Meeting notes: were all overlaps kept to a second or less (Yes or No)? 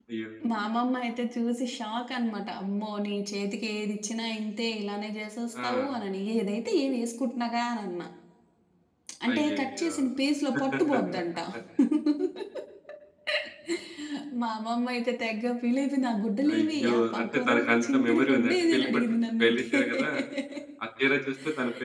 No